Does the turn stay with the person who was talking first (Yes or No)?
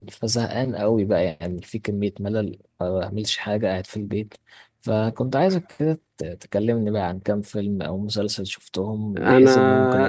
No